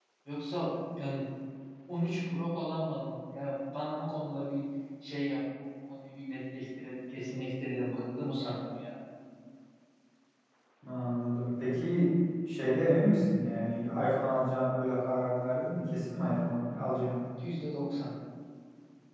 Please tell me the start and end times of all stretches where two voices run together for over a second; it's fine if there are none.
none

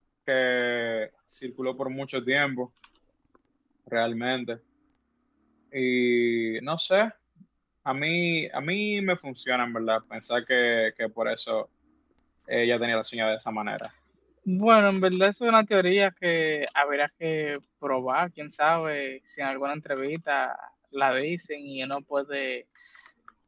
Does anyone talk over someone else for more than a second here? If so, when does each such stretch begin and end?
none

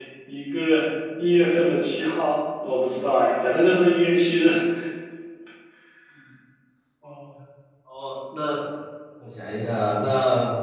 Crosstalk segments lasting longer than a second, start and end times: none

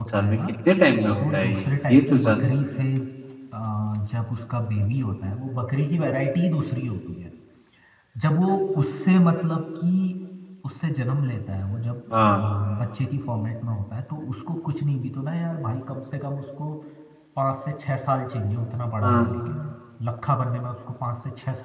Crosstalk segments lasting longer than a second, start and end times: 1.2-2.4

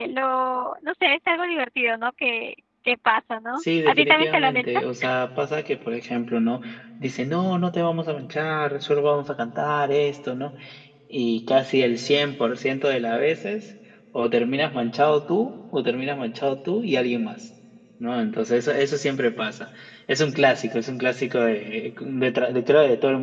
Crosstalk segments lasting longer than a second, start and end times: 3.6-4.8

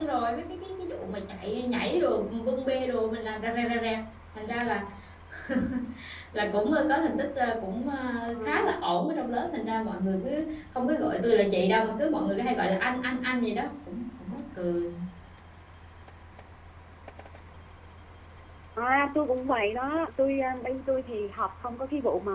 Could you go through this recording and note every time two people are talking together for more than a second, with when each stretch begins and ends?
none

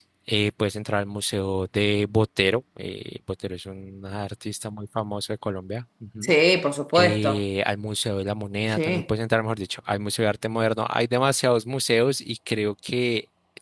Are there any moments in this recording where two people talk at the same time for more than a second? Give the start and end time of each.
none

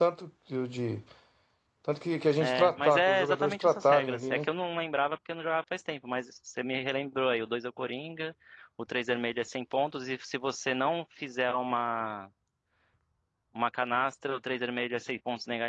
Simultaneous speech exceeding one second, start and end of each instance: 2.4-4.5

